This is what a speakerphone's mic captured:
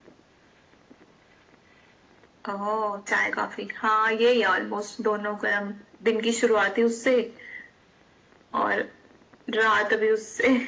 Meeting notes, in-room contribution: none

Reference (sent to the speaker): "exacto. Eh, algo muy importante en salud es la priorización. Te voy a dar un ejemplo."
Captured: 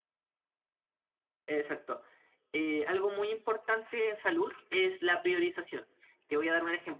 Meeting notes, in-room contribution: none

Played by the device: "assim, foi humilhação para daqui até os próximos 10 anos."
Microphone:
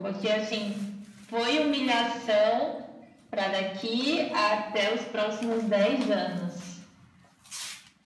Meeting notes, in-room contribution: none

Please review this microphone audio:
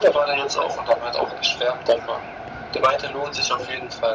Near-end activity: none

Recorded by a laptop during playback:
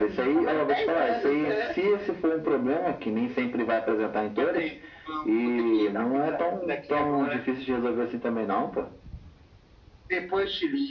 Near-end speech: none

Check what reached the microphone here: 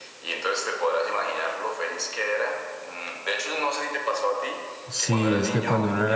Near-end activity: present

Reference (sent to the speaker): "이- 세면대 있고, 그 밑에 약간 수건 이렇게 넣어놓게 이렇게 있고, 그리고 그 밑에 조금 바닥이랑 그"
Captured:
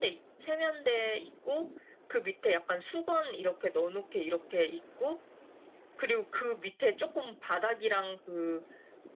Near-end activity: none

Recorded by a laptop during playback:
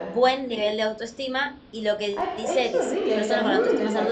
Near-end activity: present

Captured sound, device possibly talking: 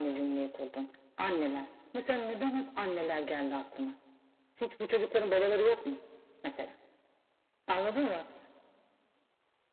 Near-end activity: none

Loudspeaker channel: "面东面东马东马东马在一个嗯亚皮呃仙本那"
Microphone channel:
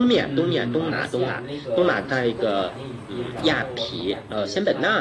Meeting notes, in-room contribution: present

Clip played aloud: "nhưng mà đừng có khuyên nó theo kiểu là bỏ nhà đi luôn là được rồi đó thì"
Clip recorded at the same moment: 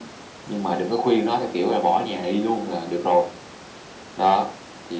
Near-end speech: none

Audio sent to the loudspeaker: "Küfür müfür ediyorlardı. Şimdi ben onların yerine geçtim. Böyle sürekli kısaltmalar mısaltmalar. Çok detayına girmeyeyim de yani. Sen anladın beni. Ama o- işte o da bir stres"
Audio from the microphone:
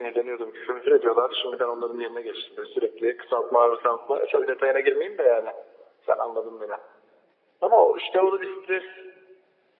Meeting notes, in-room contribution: none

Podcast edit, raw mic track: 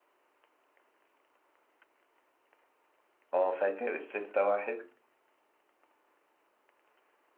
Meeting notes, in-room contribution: present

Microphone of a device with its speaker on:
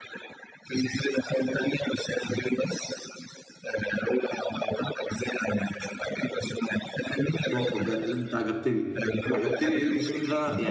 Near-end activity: present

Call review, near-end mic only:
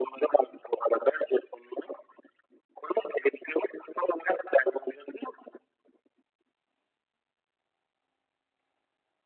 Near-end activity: none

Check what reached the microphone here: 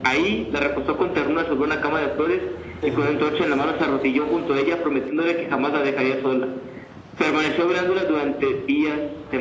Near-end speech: present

